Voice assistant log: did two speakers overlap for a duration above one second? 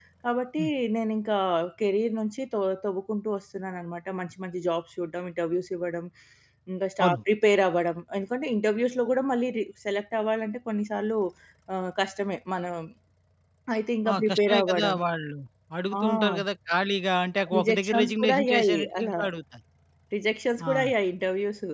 Yes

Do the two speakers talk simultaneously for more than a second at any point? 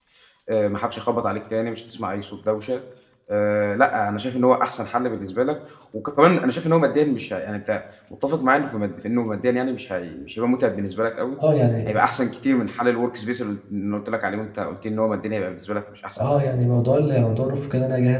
No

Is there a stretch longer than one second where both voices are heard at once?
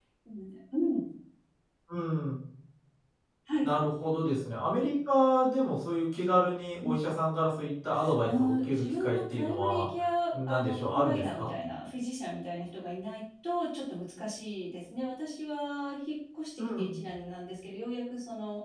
Yes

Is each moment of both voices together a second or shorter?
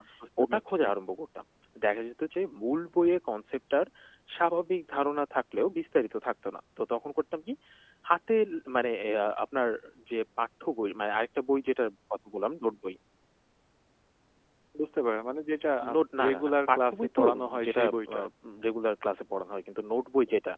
No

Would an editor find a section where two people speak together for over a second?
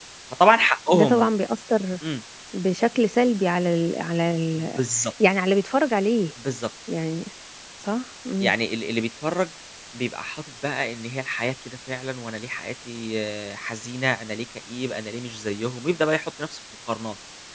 No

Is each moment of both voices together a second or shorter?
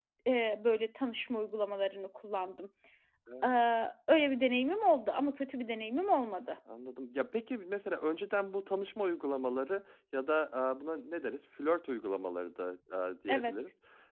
Yes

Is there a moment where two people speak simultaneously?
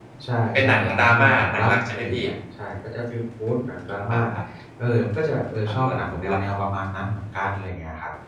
Yes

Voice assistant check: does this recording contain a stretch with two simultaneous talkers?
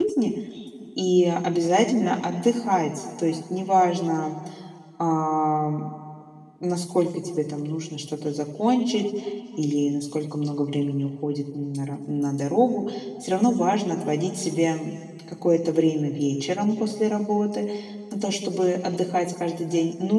No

